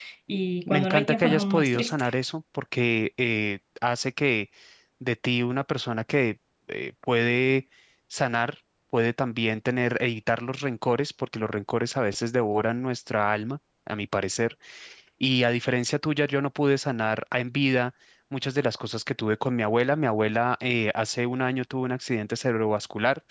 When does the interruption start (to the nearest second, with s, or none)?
1 s